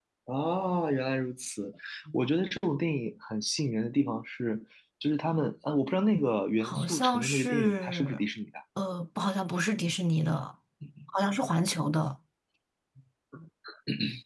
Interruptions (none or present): present